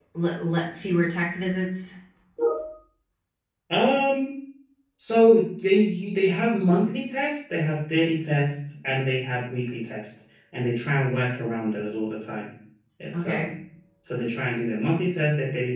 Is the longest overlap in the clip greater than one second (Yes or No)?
No